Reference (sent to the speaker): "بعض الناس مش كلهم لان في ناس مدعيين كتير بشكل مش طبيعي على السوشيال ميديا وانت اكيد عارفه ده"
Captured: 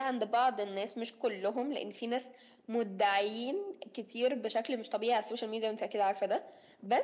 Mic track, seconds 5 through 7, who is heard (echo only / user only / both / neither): echo only